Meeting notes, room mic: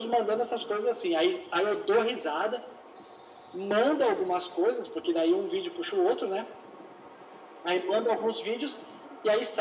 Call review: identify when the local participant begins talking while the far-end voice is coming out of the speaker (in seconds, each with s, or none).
none